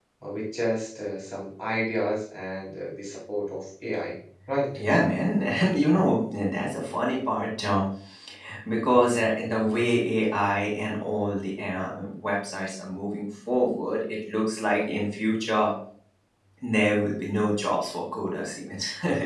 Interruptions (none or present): none